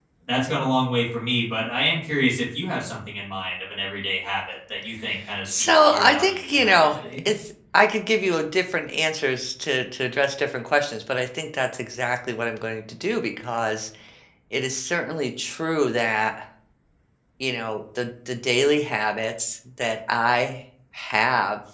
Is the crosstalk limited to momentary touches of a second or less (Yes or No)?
No